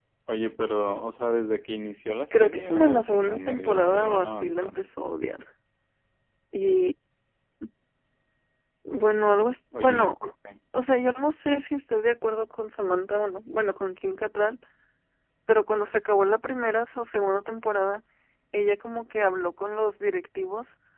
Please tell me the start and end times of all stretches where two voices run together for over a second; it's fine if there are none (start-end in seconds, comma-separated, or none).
2.3-4.8